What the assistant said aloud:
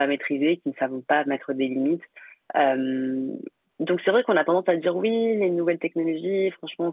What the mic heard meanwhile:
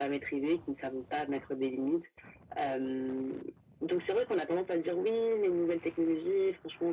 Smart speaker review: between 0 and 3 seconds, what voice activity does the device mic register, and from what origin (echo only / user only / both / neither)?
echo only